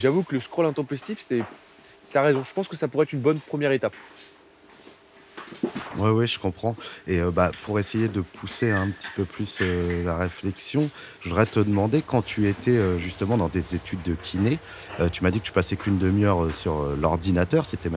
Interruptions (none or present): none